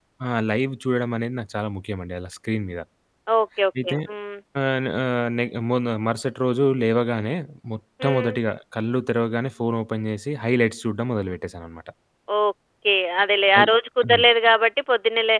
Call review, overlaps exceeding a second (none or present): none